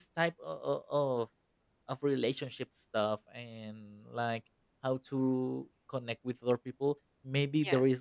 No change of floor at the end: Yes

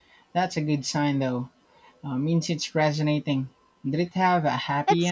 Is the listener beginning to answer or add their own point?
Yes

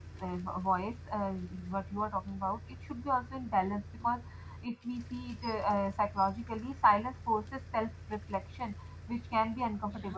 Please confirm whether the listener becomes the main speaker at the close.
No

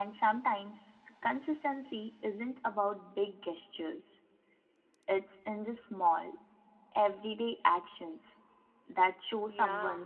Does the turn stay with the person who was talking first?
No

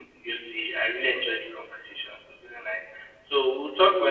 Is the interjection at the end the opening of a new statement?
No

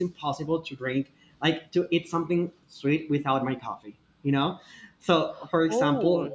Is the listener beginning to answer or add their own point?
No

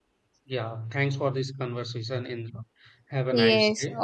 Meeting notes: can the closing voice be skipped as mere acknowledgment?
No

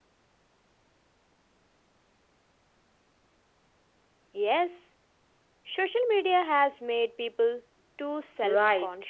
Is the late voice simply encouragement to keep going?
No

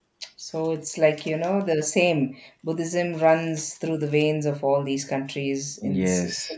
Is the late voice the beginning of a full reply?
Yes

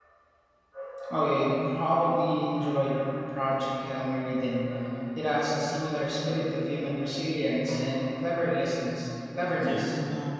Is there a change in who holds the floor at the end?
Yes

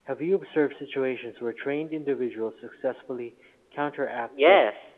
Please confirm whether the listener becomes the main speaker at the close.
Yes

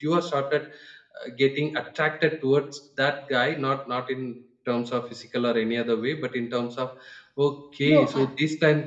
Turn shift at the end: No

